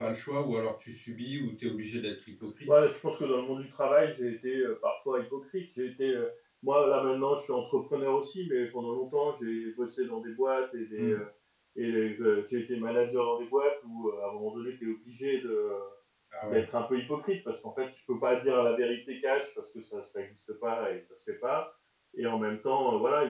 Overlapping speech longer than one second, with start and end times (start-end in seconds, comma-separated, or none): none